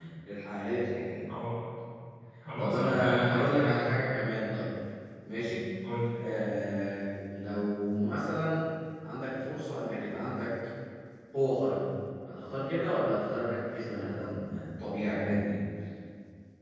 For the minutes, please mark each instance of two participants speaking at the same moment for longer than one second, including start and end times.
2.6-4.0

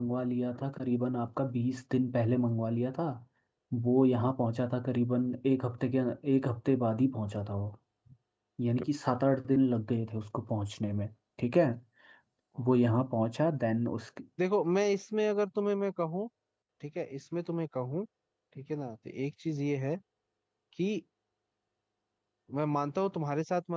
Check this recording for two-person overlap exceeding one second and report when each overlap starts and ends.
none

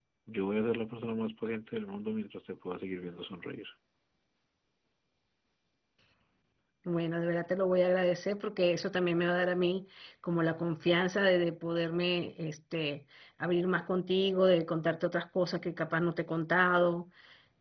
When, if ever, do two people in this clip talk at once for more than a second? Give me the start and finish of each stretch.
none

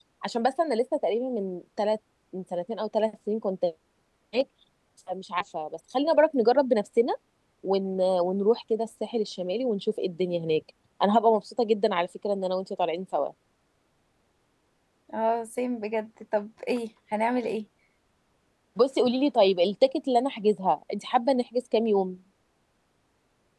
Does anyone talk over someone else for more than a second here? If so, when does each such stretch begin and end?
none

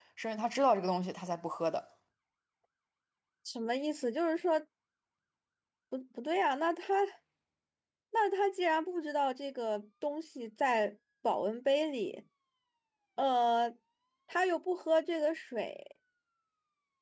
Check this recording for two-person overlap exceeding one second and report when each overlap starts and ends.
none

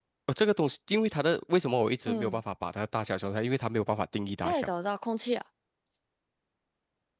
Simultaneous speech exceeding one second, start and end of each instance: none

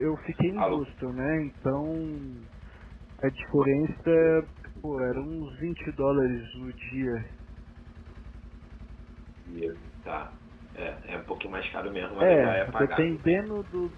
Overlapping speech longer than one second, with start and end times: 12.2-13.4

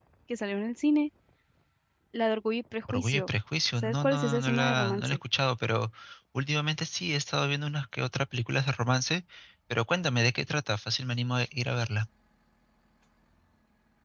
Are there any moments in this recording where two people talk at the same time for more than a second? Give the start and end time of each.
3.8-5.2

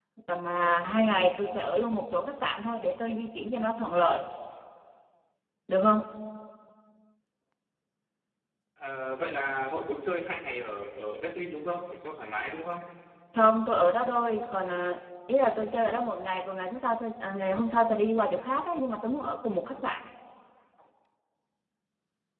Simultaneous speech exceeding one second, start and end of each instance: none

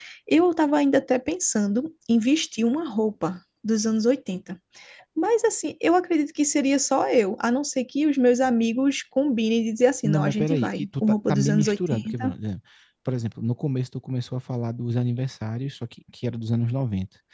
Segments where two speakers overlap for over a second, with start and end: 10.0-12.3

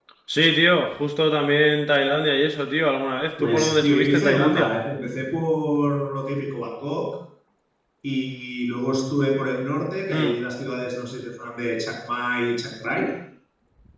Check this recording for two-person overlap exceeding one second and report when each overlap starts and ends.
3.4-4.7

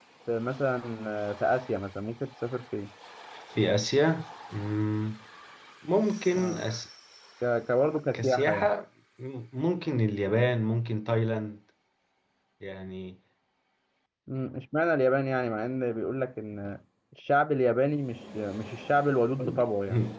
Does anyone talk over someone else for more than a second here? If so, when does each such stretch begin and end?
none

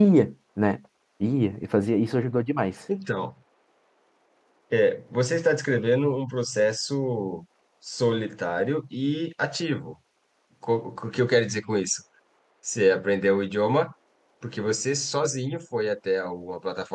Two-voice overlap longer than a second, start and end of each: none

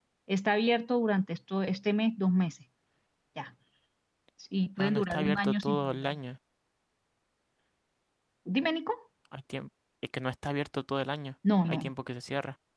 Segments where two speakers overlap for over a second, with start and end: 4.8-6.1

